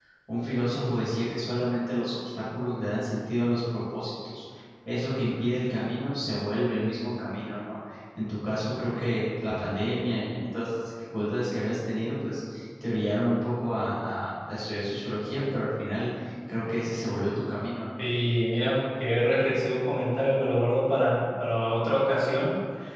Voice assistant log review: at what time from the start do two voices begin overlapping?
none

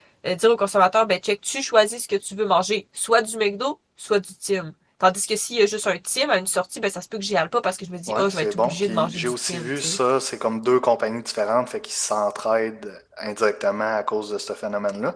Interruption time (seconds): 8 s

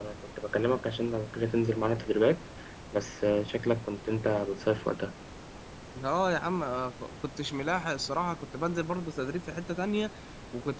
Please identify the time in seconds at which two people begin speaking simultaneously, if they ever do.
none

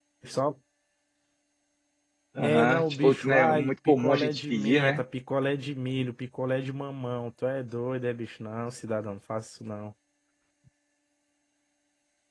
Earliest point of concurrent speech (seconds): 2 s

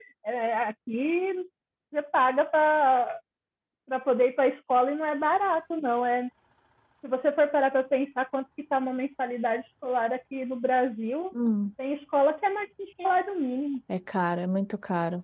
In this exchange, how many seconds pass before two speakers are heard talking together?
none

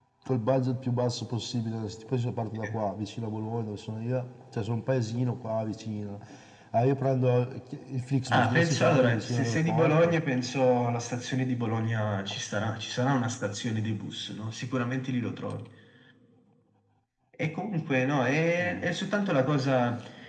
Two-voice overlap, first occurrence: 8 s

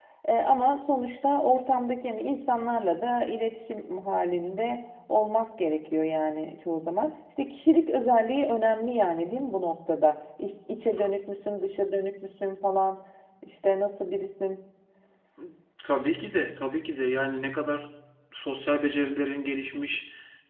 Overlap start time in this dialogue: none

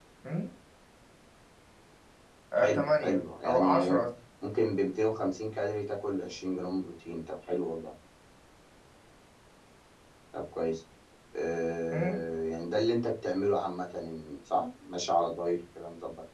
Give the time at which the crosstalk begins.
3 s

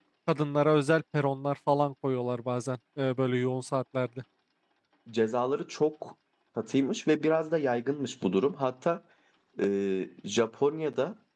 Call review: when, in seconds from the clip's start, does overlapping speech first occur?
none

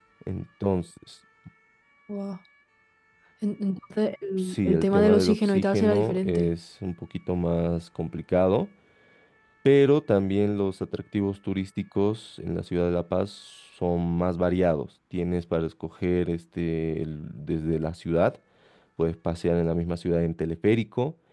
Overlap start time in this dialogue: 4 s

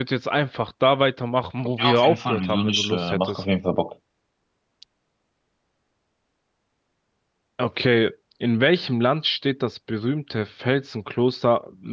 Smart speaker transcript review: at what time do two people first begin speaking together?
2 s

